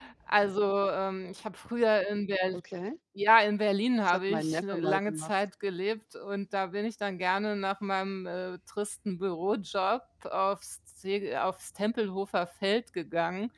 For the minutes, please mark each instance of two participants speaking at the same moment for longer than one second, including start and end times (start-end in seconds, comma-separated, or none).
4.1-5.3